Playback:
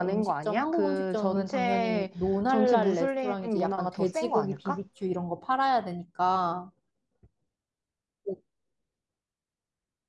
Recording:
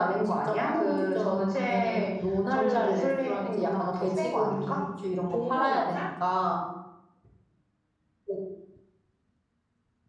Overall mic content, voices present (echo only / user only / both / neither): both